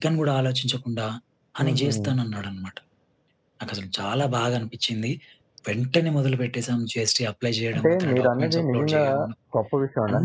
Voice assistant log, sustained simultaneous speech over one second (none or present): present